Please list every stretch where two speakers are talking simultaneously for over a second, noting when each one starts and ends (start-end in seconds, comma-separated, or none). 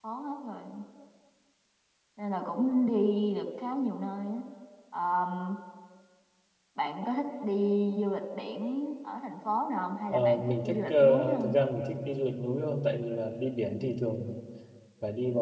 10.1-11.5